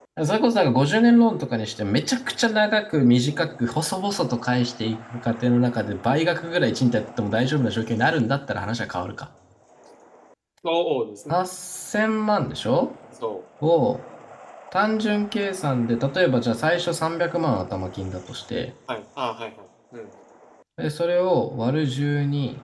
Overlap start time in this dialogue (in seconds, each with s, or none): none